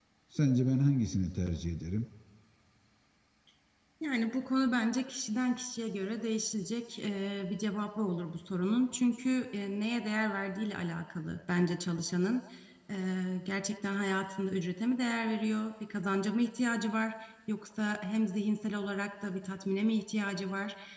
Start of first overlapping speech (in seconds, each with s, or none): none